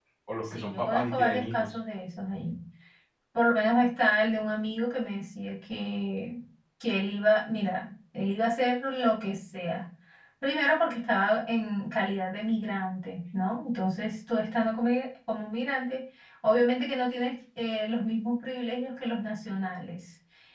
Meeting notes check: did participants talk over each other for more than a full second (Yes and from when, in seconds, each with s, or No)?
Yes, from 0.5 s